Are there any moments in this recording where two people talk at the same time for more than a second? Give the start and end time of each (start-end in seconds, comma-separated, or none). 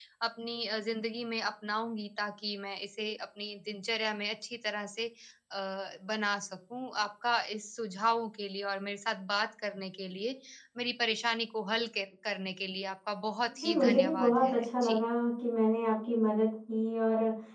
13.6-15.0